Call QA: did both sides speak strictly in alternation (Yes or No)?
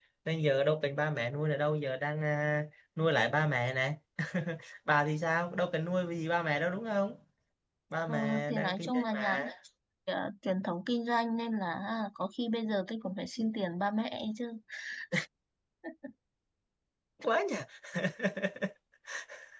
No